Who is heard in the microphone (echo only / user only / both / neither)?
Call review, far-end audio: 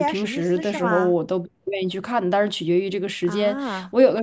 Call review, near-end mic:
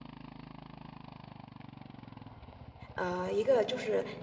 user only